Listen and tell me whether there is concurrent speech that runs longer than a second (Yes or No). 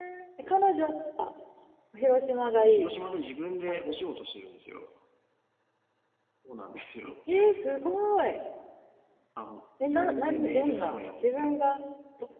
Yes